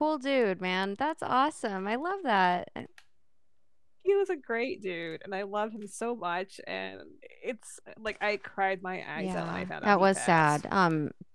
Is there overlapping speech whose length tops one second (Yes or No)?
Yes